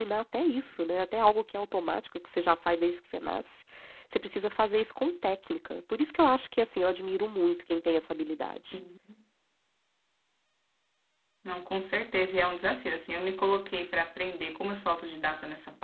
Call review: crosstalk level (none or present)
none